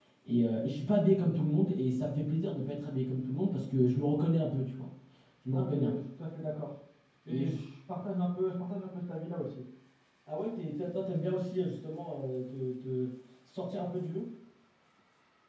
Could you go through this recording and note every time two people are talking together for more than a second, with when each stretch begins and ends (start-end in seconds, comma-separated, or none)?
none